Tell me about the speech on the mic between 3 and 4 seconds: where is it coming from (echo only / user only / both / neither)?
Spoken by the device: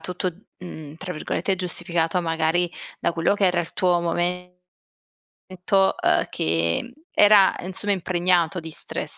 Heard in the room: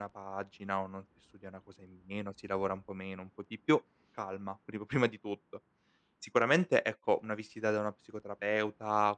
user only